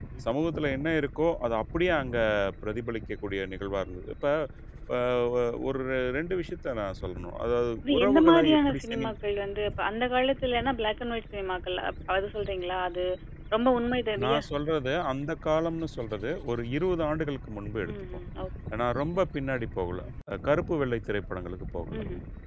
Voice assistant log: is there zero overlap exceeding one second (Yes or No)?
No